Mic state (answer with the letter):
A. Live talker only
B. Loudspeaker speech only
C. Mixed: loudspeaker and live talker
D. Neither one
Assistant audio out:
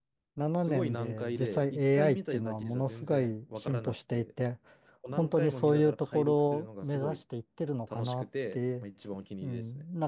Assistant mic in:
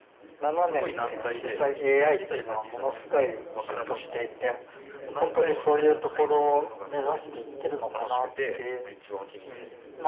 C